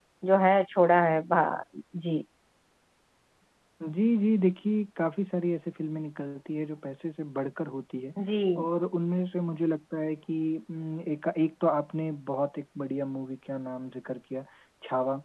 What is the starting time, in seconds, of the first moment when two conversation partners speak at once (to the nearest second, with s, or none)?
none